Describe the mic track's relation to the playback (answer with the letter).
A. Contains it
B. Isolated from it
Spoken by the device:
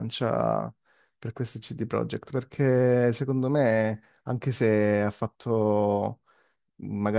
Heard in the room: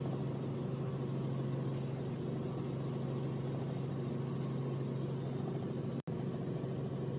B